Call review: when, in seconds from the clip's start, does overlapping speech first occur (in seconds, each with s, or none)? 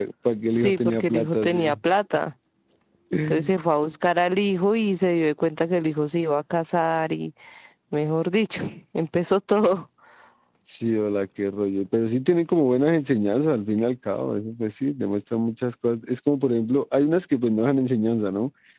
0.6 s